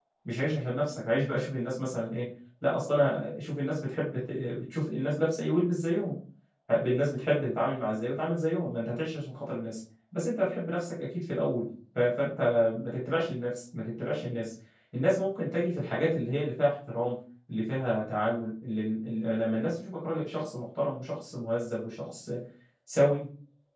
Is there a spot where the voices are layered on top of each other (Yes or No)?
No